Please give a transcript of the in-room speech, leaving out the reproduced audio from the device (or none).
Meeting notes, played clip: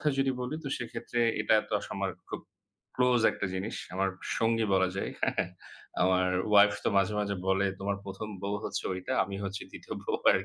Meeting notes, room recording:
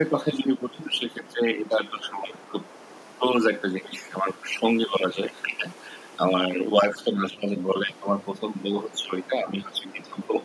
none